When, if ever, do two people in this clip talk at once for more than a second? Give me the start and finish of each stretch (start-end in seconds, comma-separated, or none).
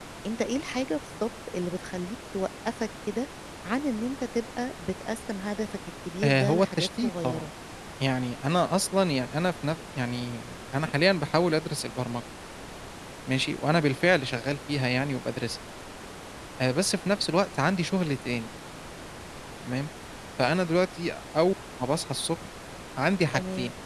6.2-7.5